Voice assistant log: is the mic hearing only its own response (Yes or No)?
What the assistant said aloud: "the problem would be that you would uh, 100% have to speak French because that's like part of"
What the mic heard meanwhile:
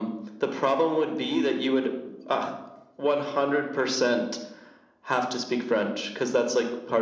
Yes